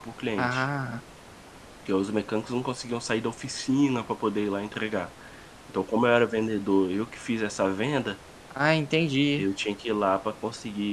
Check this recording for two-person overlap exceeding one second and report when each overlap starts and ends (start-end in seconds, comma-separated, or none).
none